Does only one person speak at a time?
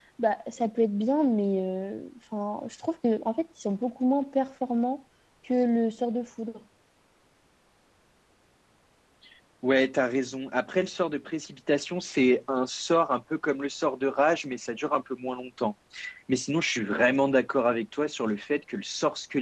Yes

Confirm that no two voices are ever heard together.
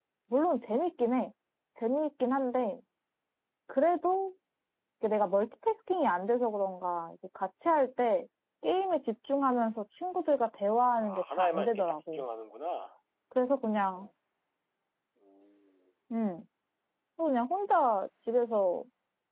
No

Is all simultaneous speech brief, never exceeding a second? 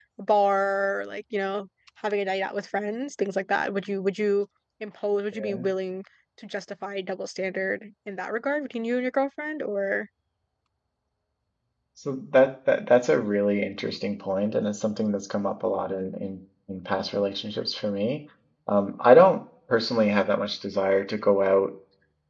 Yes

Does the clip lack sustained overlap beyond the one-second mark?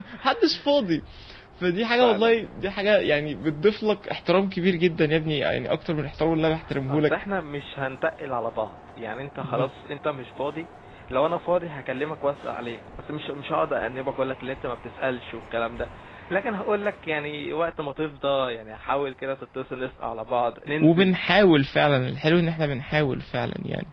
Yes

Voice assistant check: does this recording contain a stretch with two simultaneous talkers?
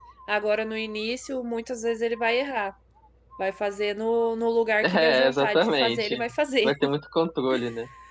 Yes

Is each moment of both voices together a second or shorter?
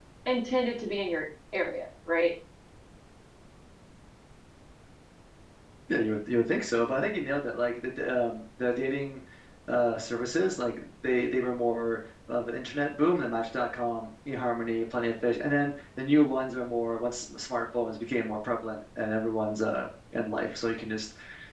Yes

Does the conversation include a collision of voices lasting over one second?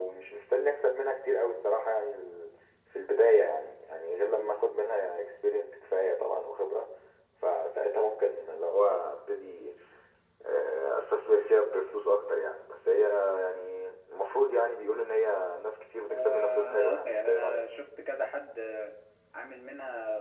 Yes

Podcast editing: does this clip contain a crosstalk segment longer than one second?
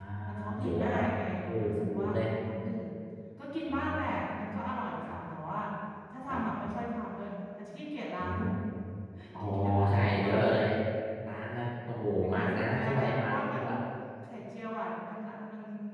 Yes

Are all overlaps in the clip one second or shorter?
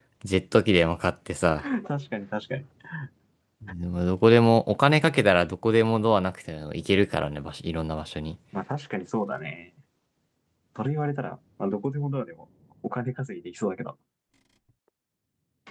Yes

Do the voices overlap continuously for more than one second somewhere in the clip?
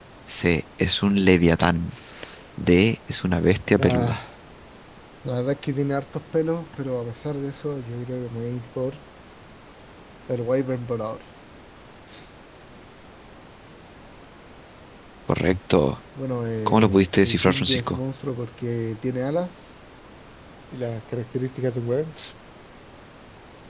Yes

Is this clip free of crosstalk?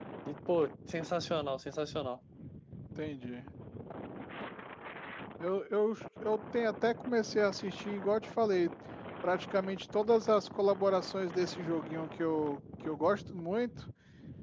Yes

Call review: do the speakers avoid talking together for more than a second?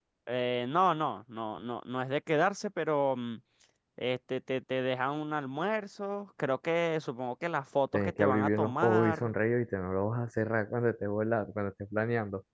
No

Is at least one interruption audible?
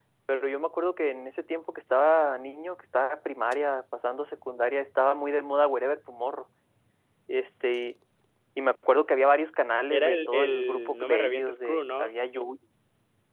Yes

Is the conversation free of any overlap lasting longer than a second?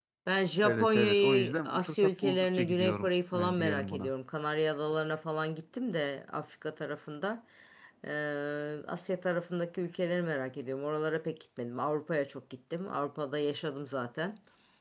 No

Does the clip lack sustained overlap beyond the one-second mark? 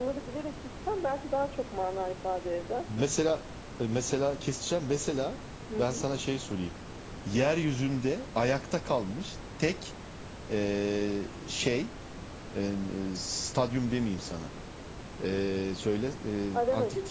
Yes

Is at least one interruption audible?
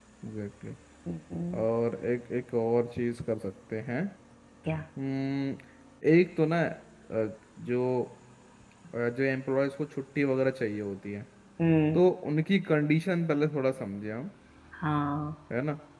No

